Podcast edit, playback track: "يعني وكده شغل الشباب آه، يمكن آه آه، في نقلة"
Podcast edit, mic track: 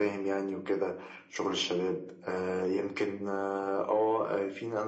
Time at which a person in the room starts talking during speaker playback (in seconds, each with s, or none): none